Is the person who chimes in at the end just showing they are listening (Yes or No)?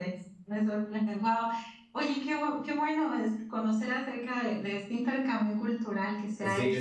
No